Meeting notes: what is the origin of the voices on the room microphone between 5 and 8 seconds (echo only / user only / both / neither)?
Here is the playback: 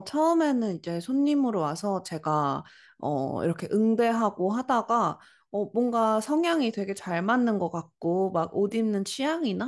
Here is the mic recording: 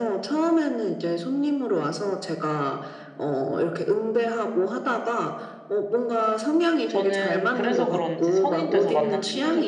both